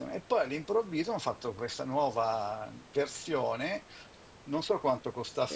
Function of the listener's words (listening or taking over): listening